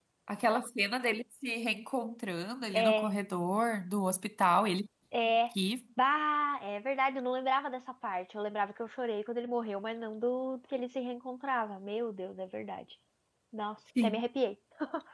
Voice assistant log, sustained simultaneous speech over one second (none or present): none